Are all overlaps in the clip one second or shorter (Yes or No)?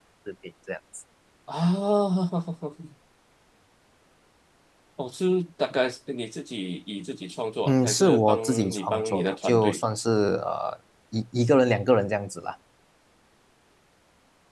No